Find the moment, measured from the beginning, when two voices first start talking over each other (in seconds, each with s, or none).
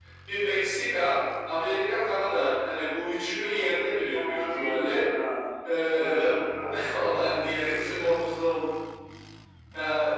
3.4 s